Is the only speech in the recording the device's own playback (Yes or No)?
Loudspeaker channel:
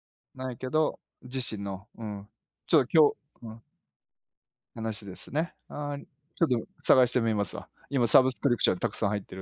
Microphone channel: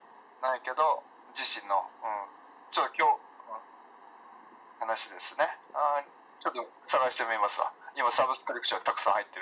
Yes